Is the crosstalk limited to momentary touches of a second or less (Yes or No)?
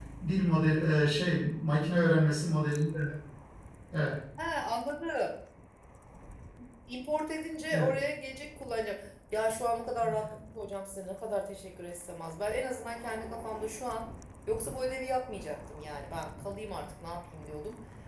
Yes